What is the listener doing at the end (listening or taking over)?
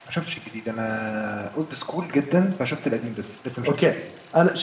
taking over